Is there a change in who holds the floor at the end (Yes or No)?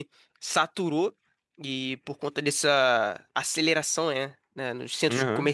No